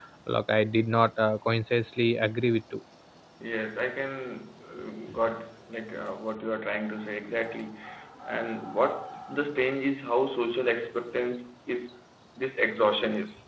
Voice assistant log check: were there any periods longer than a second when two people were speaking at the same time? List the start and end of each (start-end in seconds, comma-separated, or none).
none